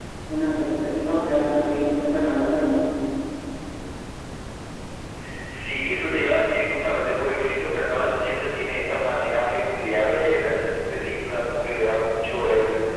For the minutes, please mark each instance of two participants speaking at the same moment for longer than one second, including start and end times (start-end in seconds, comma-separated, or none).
none